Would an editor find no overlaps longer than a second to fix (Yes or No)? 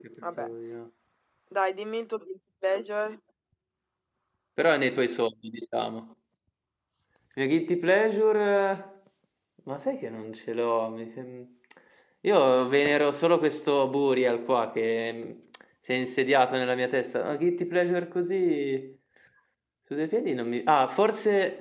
Yes